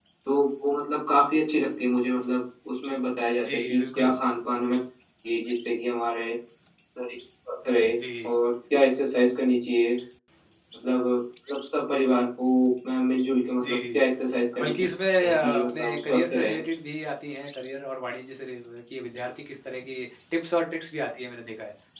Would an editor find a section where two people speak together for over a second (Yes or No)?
Yes